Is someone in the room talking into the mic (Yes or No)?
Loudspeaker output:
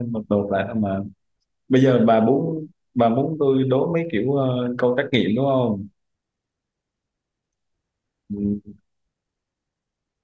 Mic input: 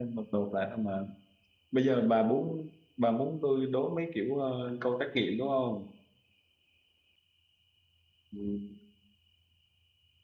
No